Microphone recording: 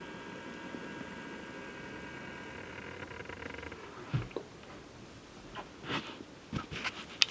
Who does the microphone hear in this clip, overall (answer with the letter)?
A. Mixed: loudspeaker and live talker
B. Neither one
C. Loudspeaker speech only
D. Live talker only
B